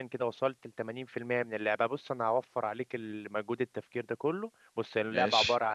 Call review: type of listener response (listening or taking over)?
listening